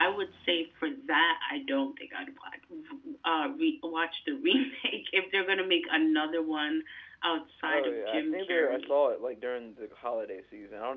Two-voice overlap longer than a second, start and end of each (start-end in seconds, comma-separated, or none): 7.7-8.9